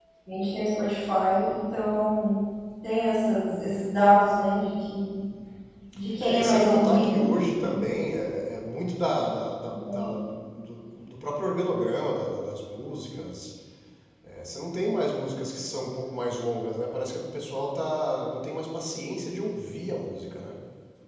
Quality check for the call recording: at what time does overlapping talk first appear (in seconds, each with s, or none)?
6.2 s